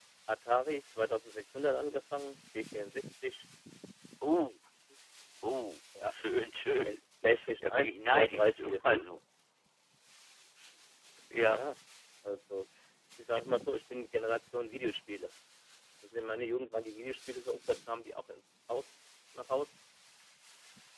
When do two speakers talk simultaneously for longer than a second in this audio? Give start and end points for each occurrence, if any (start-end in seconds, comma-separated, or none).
7.7-9.1